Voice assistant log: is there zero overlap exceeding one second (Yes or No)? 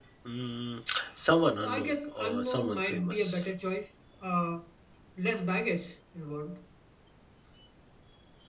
No